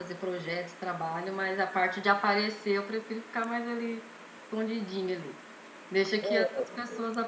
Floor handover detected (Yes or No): No